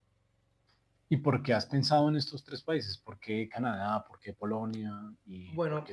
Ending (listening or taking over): taking over